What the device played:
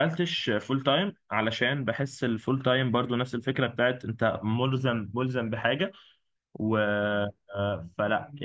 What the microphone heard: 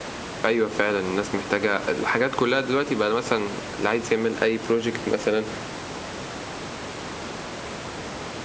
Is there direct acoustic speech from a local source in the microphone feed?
Yes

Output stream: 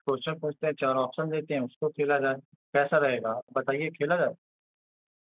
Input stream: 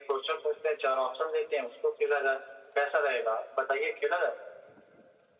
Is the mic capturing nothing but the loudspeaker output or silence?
Yes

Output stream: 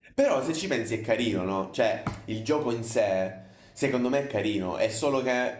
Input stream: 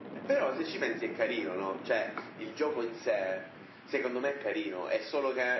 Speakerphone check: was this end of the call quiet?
Yes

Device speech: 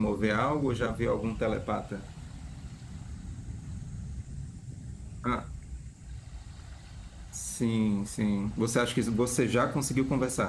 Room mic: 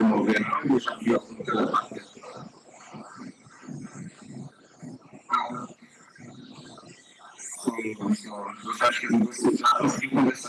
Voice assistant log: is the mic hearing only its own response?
Yes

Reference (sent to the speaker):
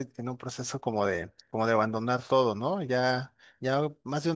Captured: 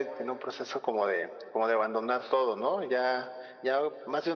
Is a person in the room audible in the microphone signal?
No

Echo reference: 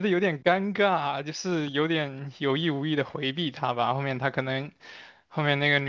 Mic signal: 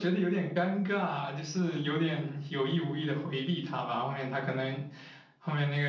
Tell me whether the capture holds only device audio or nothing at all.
Yes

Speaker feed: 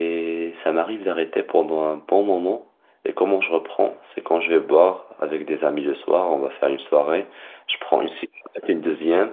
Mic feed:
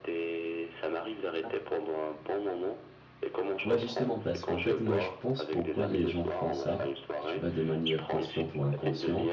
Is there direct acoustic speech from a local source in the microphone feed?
Yes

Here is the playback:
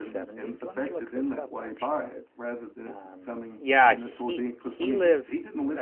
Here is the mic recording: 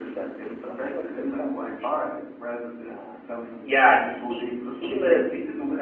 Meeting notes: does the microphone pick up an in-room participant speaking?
No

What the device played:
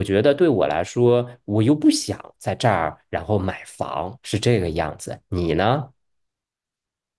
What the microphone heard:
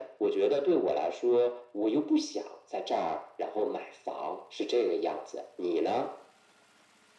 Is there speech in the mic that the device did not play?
No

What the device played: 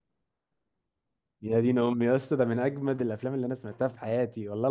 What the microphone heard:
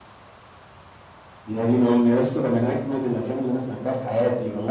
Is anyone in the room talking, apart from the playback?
No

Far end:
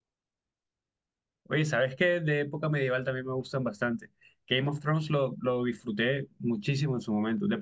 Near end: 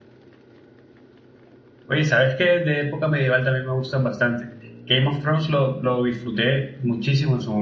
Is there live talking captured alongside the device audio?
No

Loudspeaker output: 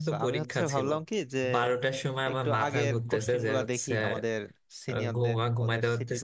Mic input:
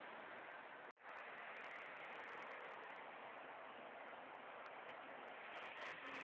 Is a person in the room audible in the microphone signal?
No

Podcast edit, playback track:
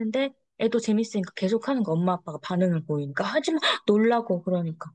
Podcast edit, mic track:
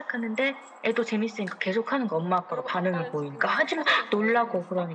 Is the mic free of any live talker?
No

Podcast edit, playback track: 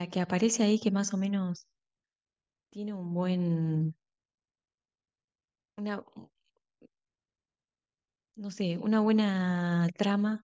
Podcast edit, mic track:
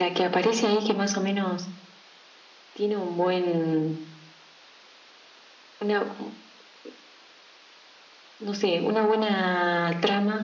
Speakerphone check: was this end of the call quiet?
Yes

